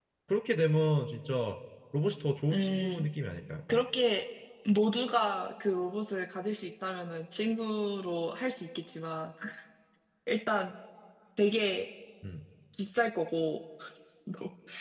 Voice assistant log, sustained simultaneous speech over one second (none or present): none